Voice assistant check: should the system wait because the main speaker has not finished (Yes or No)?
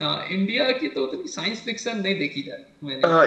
No